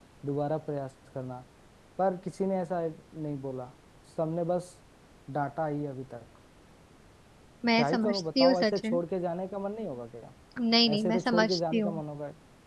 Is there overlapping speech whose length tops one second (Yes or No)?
Yes